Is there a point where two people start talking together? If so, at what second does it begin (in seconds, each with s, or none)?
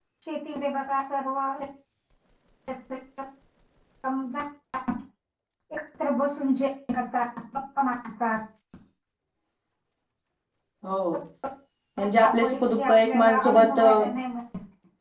12.0 s